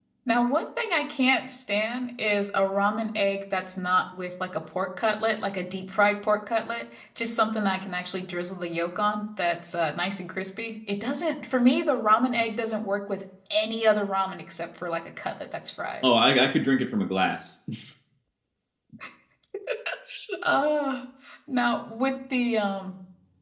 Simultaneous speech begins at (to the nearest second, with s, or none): none